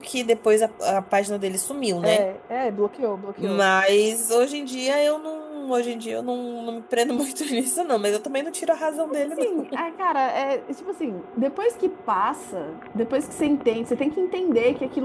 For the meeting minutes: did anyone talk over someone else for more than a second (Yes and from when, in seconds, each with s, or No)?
No